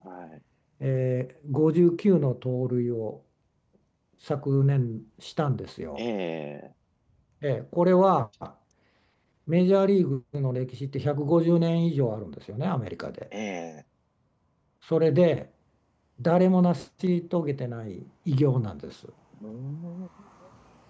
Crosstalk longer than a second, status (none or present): none